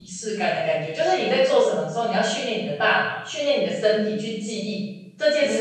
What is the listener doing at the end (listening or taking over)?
listening